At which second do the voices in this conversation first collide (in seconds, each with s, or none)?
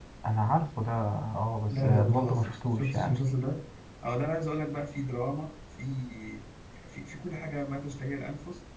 1.7 s